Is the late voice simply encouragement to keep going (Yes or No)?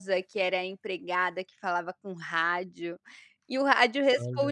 Yes